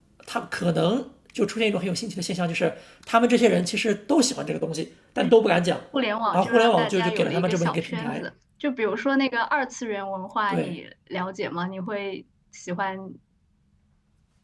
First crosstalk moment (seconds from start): 6.3 s

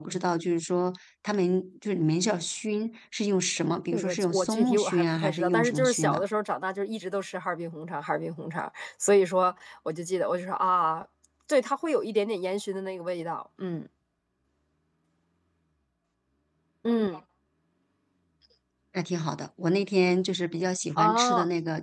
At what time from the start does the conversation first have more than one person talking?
3.9 s

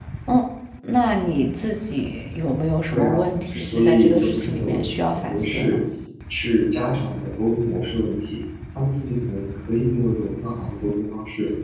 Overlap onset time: 2.9 s

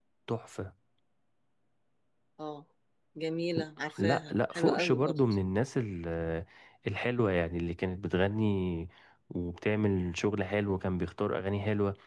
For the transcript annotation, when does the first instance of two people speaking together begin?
4.0 s

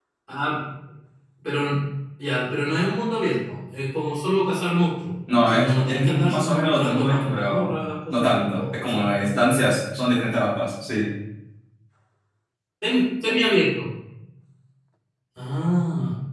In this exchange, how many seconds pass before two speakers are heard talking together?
5.3 s

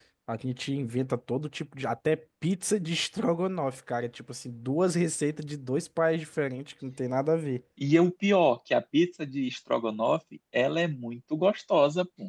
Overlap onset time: none

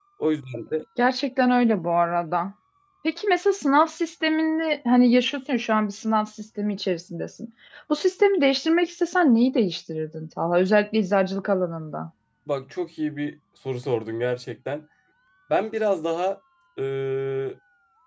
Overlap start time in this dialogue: none

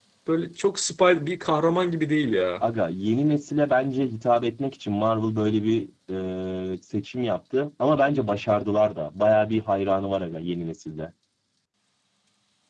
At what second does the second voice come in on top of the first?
none

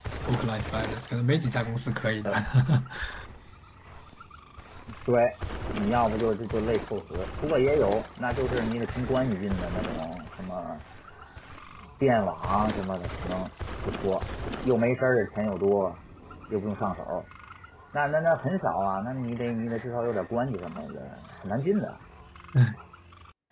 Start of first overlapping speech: none

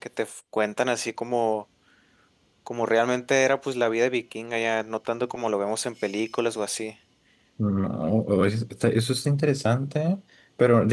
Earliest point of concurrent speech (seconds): none

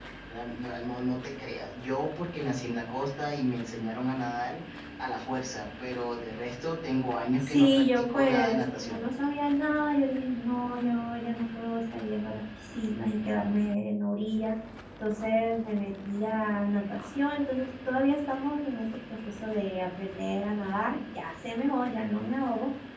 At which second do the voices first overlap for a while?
7.4 s

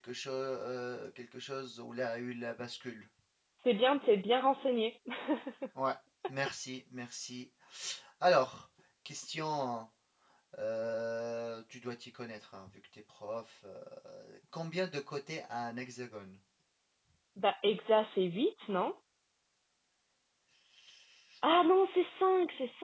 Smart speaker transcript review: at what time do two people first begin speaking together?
none

